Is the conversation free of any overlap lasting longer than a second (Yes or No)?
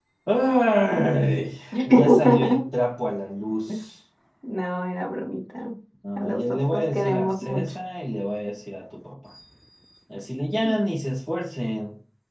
No